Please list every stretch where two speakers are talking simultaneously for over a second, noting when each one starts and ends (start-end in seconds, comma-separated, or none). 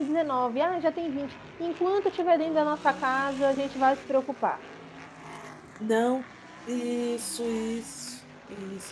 none